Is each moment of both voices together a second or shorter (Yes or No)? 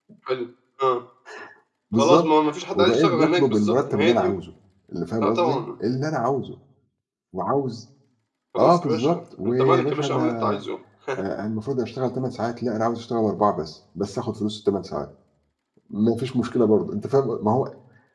No